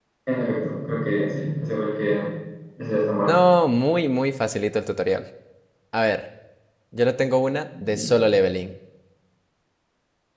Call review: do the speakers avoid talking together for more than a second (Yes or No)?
Yes